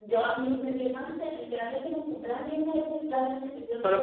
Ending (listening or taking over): taking over